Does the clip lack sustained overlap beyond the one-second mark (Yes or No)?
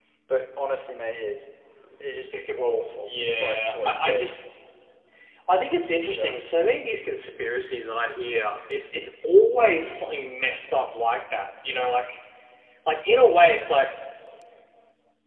No